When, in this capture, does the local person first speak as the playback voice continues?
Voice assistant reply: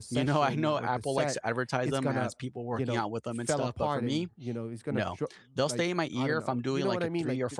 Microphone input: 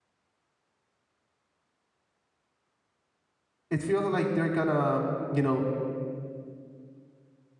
3.7 s

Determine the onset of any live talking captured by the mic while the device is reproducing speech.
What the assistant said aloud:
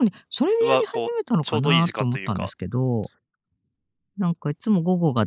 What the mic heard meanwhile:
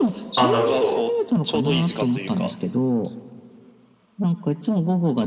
0.3 s

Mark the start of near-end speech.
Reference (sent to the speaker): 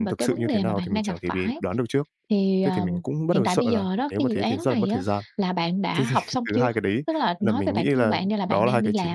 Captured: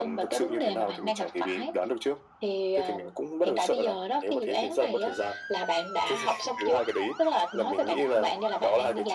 none

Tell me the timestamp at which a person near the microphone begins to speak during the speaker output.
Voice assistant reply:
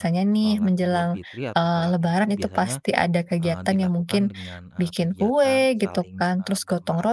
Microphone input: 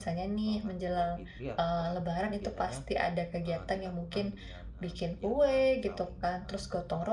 none

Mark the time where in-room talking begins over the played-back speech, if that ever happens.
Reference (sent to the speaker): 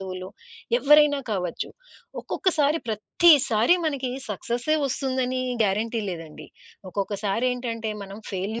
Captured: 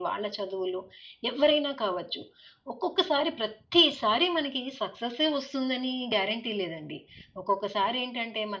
none

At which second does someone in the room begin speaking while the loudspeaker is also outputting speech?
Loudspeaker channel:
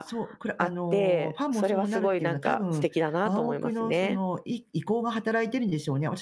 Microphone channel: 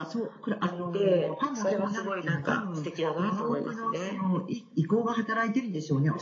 none

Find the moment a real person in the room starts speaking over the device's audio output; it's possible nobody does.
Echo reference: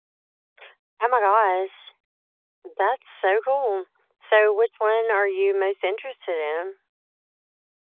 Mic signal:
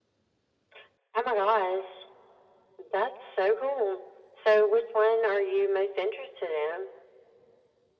none

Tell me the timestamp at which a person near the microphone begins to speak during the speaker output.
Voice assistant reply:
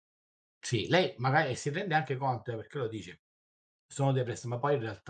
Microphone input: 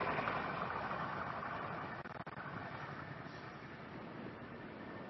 none

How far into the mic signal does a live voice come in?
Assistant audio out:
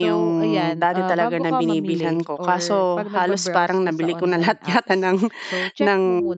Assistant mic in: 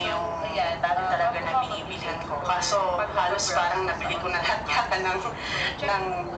none

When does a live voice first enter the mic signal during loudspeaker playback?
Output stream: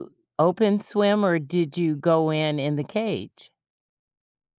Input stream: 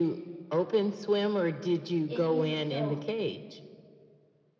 2.1 s

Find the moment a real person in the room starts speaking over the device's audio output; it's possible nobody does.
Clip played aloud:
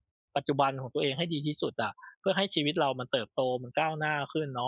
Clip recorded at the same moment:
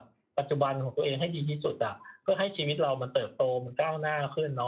none

